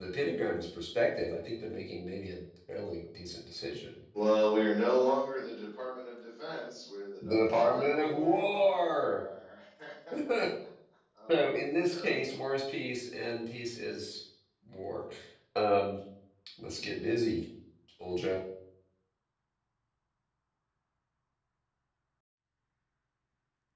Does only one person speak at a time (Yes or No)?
No